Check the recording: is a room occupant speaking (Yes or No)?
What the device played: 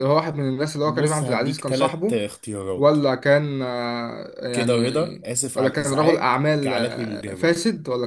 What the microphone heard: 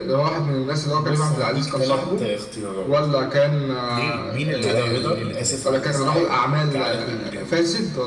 Yes